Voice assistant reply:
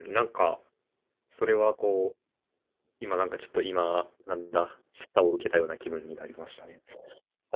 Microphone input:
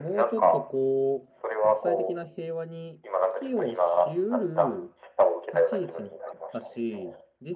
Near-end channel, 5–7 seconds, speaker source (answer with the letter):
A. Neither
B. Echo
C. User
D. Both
D